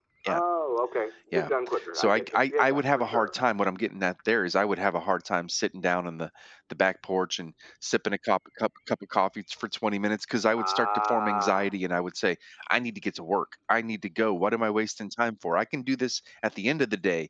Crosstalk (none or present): present